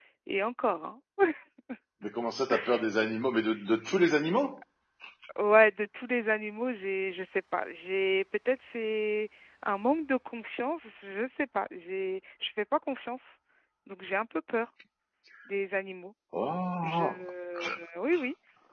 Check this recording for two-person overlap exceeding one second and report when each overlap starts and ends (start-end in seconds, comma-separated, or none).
none